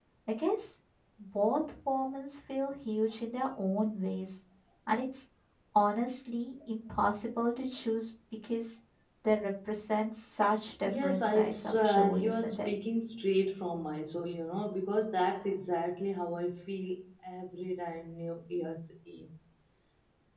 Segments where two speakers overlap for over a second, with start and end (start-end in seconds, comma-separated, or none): 10.8-12.7